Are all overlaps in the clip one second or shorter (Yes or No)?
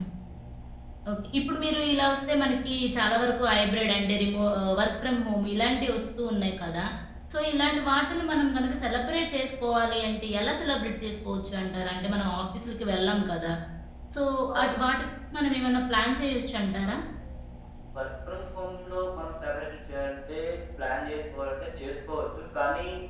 Yes